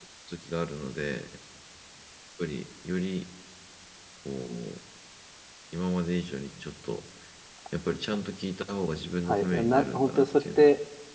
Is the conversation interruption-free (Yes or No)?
No